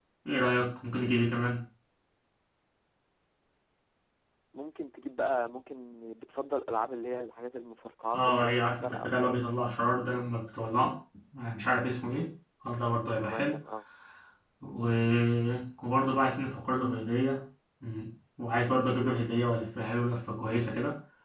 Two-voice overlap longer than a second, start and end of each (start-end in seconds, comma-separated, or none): 8.1-9.4